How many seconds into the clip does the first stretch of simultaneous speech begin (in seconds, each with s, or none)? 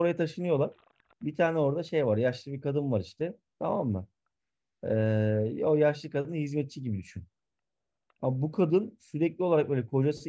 none